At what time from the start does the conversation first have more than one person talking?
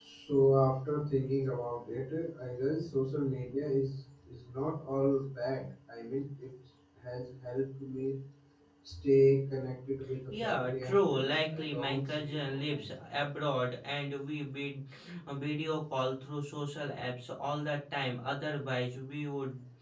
10.3 s

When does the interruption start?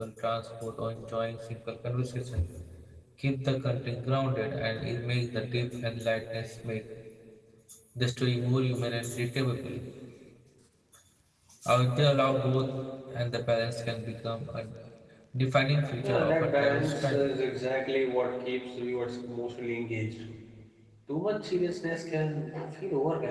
16.0 s

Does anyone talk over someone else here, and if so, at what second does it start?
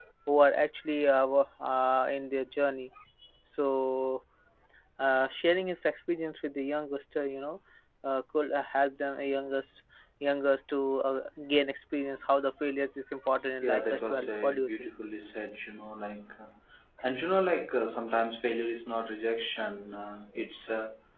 13.6 s

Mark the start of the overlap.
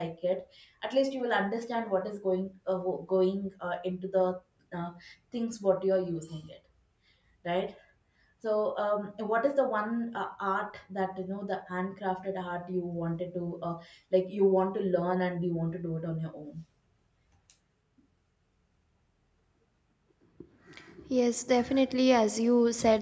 none

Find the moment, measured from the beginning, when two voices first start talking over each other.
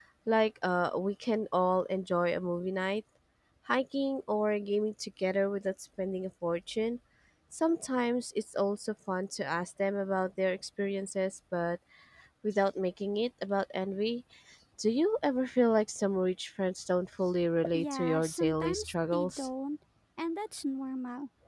17.7 s

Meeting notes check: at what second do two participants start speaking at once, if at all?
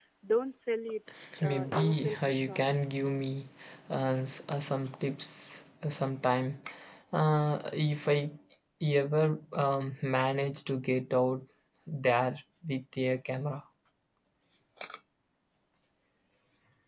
1.4 s

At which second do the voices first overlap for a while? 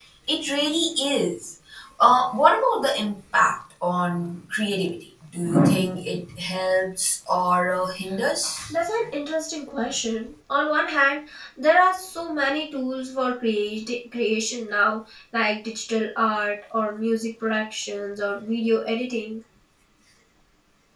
none

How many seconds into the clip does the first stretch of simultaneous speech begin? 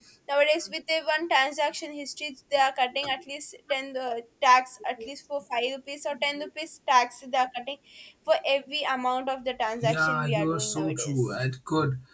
9.8 s

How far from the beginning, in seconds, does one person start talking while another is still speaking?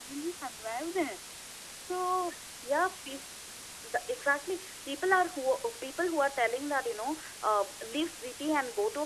none

